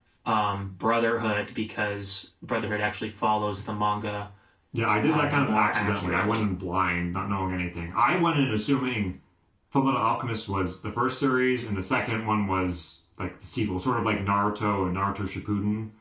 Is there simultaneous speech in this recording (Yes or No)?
Yes